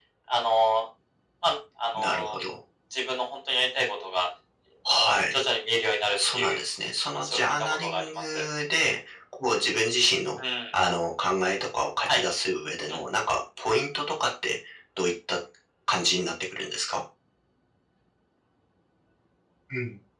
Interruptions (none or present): present